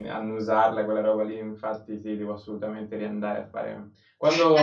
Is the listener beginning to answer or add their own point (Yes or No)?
No